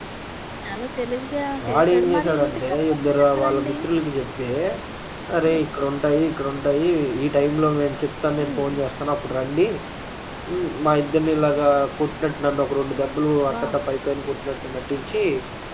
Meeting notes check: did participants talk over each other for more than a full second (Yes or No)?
Yes